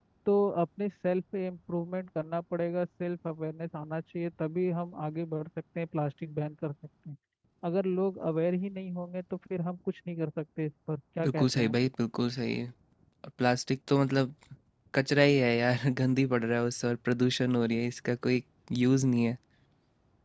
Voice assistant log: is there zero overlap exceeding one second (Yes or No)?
Yes